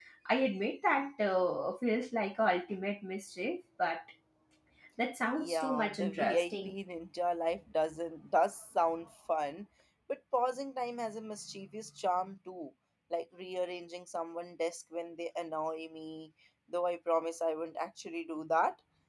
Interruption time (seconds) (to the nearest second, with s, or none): 5 s